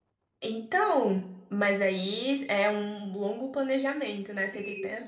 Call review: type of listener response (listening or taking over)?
taking over